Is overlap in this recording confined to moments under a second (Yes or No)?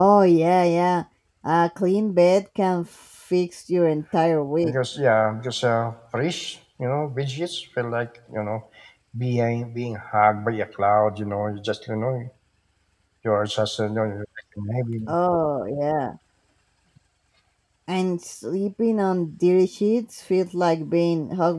Yes